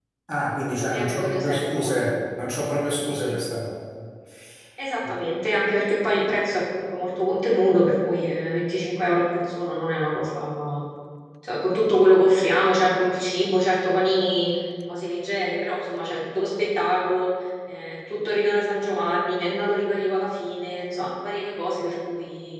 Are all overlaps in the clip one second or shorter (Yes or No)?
No